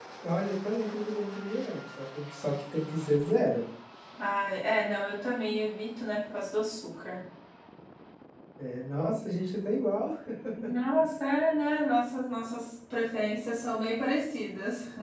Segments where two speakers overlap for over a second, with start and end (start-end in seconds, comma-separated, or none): none